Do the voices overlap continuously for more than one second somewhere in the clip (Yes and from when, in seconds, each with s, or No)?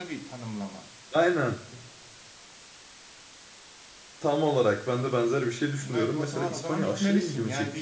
Yes, from 5.8 s